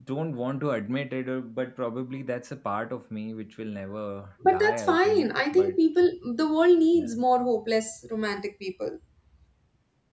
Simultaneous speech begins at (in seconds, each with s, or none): 4.4 s